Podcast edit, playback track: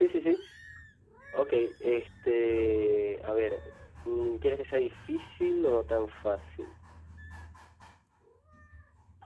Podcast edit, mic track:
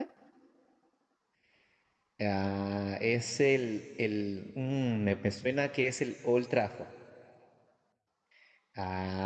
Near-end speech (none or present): present